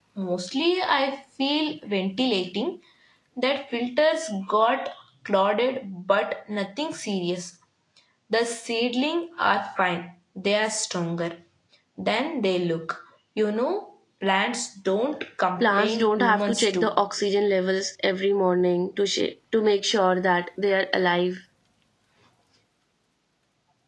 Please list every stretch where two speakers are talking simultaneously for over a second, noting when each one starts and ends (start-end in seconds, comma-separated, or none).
15.6-16.9